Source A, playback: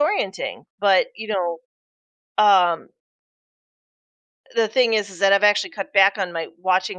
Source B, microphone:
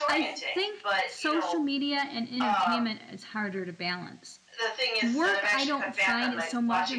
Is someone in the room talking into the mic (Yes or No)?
Yes